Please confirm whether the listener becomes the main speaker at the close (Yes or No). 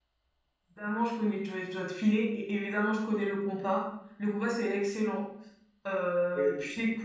No